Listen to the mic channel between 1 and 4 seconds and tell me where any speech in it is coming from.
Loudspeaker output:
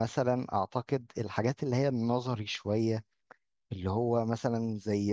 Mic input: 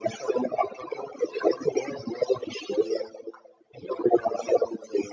echo only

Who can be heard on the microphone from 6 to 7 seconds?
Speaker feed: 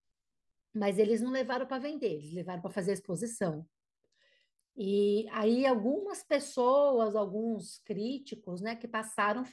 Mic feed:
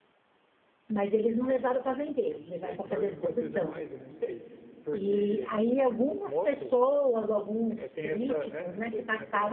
both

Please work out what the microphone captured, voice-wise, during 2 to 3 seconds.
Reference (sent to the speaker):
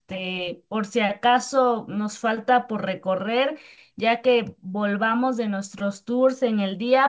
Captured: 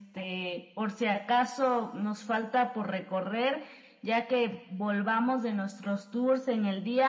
echo only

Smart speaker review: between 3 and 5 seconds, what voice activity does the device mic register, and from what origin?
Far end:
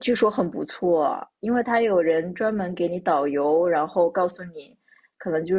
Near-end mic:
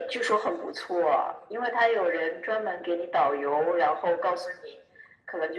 echo only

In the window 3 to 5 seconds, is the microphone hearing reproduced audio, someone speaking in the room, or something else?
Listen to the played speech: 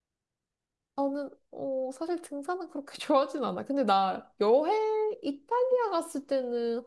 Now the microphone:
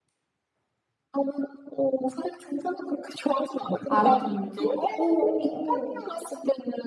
both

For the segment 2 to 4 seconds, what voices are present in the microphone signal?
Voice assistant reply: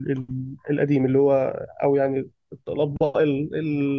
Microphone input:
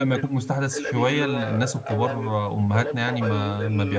both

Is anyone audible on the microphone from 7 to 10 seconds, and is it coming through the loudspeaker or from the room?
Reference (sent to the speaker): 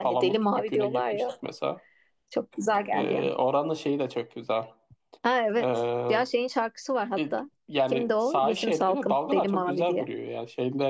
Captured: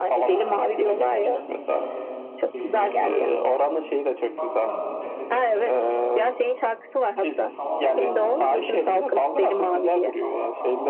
both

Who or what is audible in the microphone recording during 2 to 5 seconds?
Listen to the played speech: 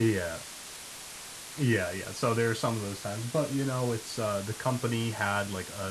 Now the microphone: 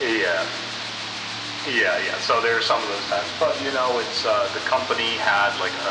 echo only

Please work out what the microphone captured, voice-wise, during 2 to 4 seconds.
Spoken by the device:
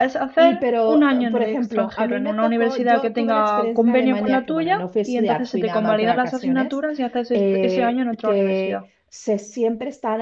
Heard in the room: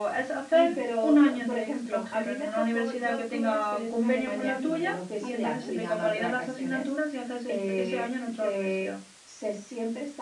echo only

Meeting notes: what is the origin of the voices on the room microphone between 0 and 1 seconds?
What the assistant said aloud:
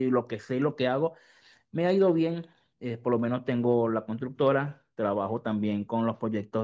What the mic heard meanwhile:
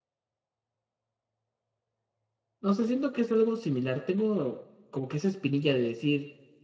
neither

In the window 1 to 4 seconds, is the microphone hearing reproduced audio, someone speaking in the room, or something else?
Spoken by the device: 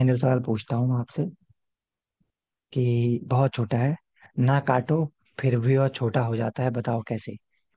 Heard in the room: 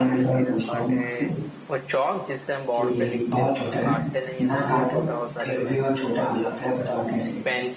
both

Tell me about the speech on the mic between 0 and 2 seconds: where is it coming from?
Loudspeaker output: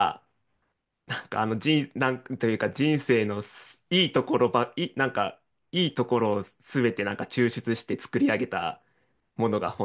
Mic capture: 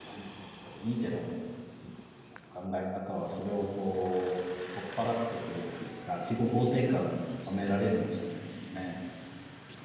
user only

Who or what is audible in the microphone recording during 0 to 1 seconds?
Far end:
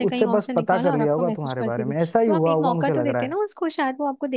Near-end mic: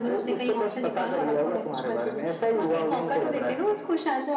echo only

